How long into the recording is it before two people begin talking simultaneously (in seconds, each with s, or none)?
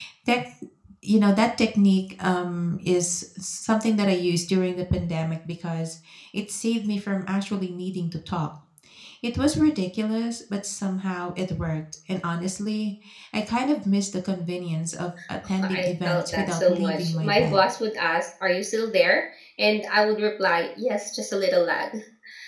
15.6 s